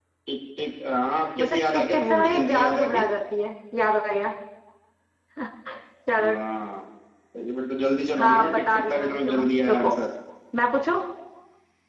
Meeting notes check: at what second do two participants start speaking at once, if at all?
1.4 s

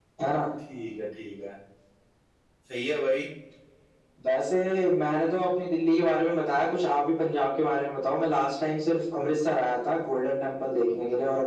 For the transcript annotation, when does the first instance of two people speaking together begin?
none

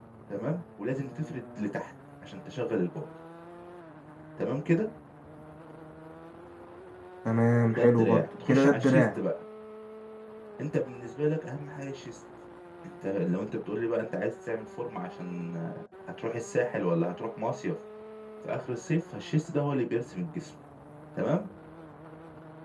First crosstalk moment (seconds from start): 7.7 s

